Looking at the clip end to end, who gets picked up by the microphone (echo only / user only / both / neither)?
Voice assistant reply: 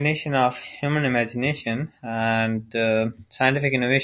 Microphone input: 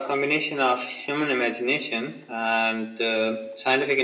echo only